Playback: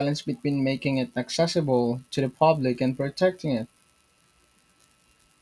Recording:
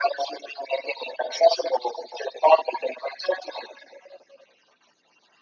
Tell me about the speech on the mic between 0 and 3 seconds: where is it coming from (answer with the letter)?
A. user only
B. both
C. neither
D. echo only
D